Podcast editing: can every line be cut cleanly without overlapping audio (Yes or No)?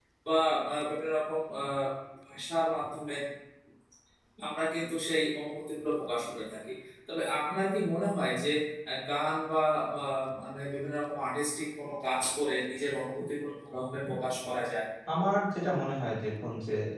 Yes